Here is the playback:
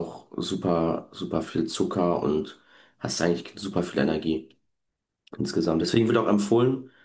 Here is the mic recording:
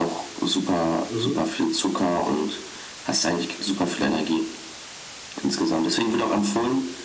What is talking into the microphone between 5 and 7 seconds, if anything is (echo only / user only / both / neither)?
echo only